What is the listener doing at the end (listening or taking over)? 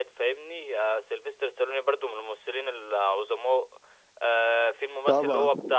listening